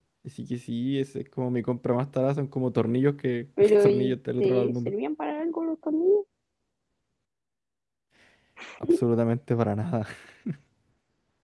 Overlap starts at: 4 s

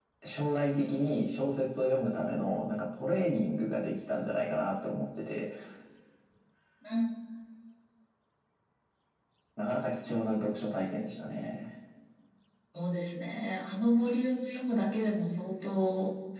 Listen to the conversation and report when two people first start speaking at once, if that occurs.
none

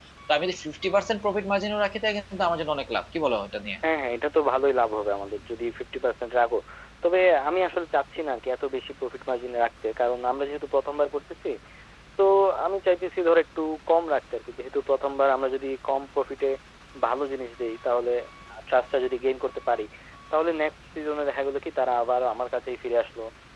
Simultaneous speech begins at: none

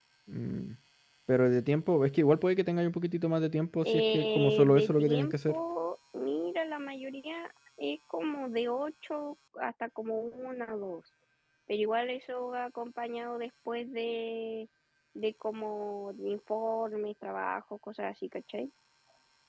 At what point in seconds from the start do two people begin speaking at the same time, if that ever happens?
4 s

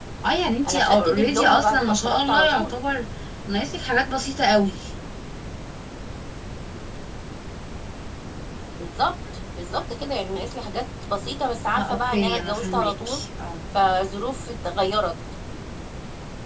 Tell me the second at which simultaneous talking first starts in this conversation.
1 s

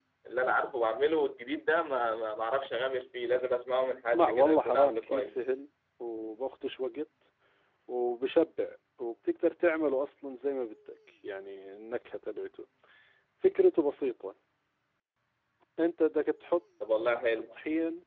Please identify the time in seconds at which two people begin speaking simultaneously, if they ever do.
4 s

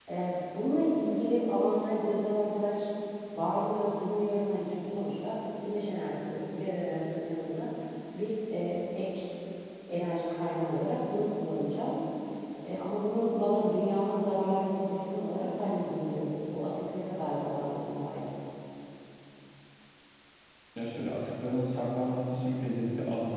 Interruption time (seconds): none

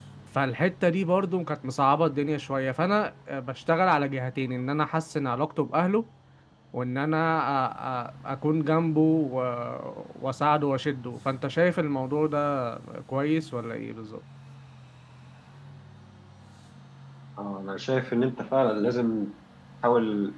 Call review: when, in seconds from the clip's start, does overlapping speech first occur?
none

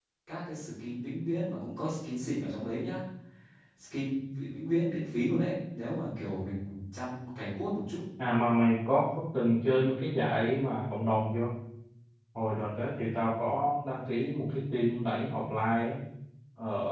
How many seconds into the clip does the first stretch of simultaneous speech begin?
none

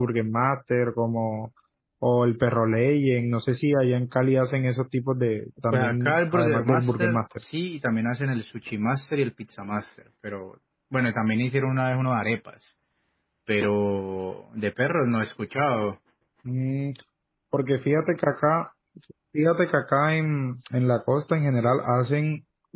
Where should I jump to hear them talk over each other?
6 s

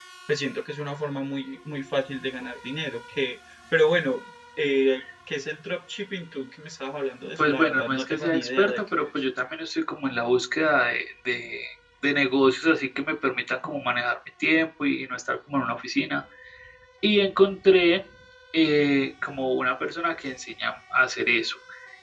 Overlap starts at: 7 s

